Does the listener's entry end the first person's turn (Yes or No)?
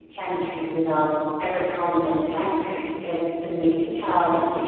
No